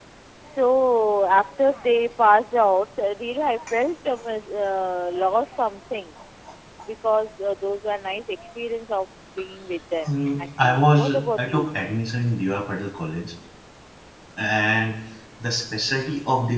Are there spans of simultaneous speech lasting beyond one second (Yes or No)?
Yes